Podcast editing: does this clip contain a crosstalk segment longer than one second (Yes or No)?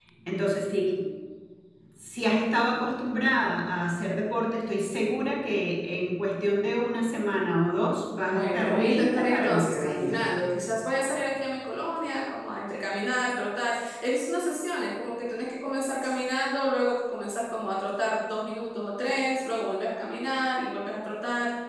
Yes